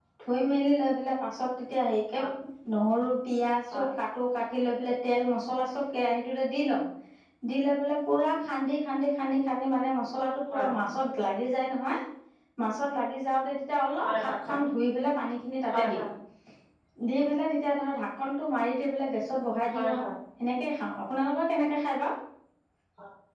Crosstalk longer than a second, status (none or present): none